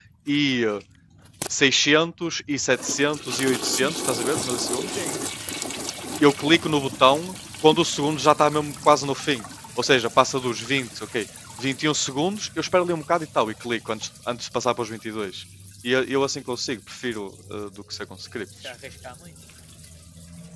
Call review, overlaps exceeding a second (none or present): none